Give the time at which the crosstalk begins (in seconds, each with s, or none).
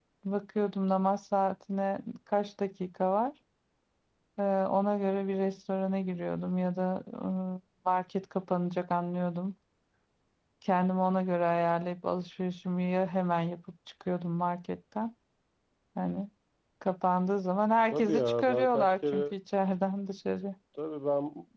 17.9 s